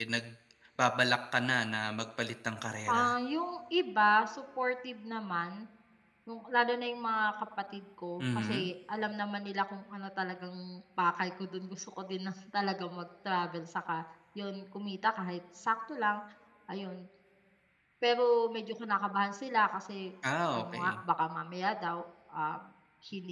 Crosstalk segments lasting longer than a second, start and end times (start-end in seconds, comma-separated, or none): none